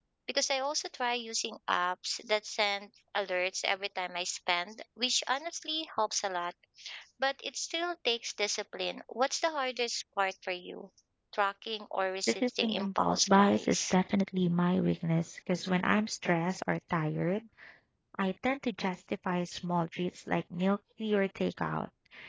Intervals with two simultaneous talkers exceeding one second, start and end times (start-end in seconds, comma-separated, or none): 12.4-13.9